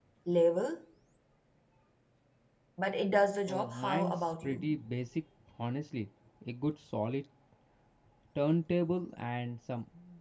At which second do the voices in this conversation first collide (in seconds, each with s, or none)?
3.5 s